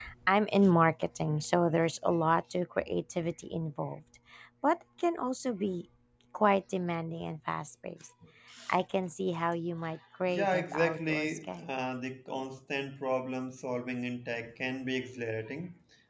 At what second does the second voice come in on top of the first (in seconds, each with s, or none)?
10.3 s